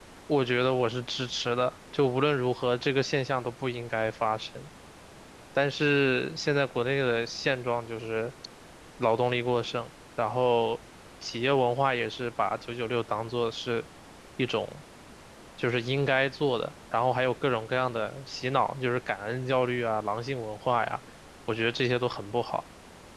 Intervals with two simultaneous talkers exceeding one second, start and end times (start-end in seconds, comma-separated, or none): none